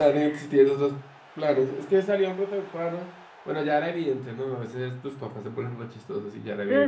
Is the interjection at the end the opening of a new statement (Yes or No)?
Yes